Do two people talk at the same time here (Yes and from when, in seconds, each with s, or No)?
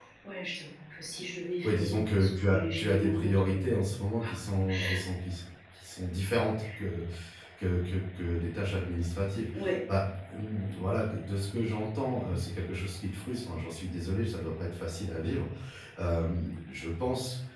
Yes, from 1.6 s